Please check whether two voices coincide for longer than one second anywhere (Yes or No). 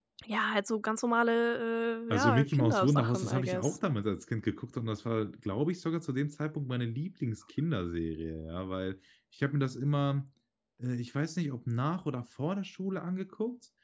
Yes